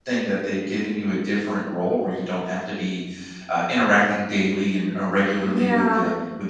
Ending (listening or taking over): listening